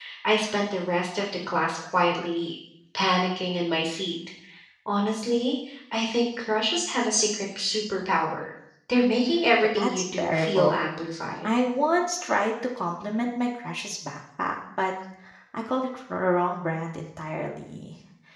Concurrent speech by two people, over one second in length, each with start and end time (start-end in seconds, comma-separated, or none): 9.5-10.8